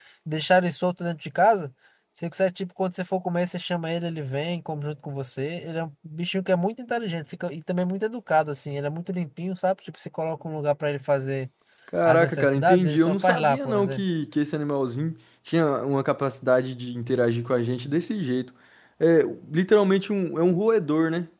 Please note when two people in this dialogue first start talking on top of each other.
12.1 s

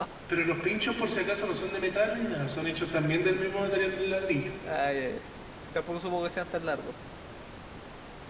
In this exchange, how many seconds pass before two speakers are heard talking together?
none

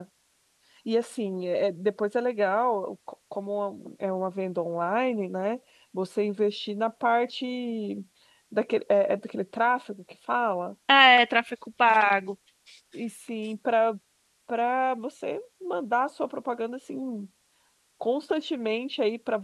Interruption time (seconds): none

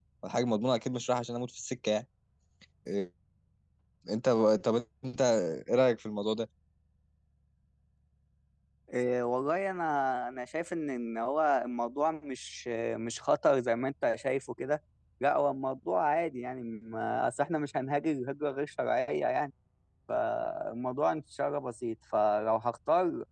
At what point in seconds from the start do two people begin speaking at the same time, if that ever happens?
none

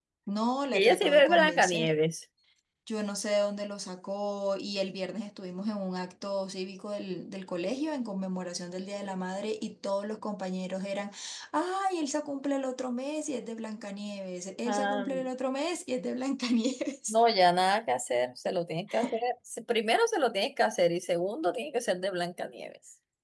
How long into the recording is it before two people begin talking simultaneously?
0.7 s

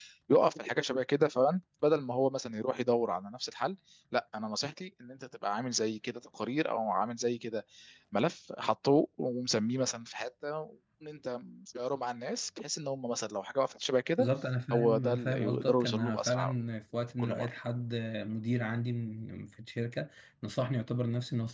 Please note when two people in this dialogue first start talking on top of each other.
14.7 s

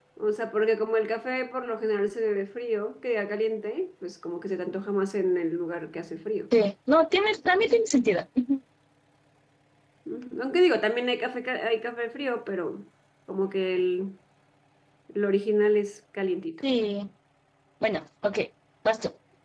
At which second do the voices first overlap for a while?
none

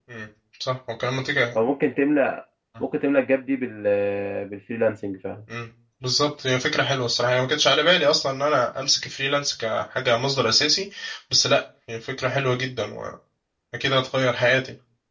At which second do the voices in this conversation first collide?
none

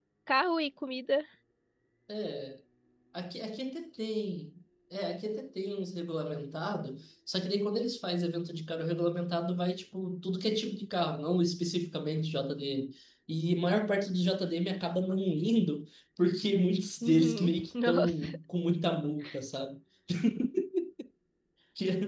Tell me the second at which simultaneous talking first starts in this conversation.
17.0 s

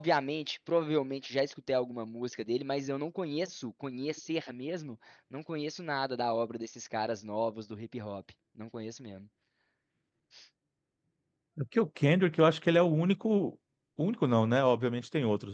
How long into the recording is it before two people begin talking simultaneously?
none

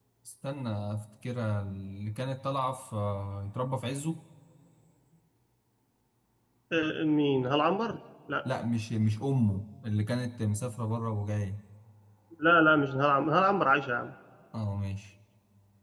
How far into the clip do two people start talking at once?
none

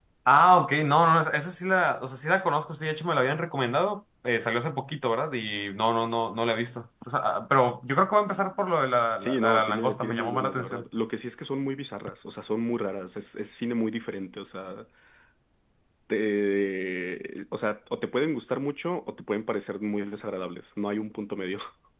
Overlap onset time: 9.2 s

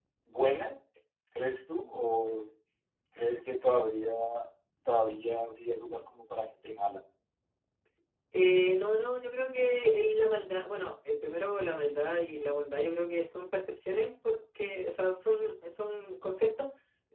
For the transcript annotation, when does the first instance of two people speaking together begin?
none

